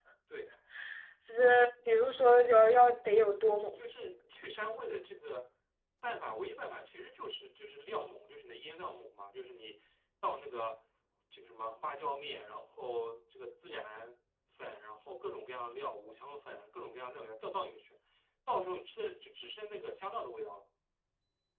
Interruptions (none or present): none